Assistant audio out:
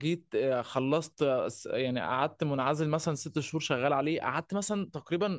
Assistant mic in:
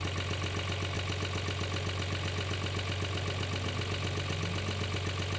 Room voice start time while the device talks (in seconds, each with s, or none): none